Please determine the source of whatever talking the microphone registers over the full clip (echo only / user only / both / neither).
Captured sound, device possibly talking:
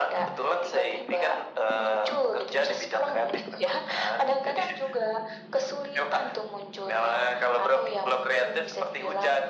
echo only